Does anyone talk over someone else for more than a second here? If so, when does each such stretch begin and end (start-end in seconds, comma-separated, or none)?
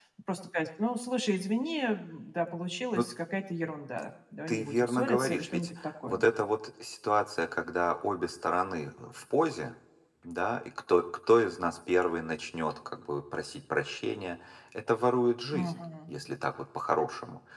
4.5-6.2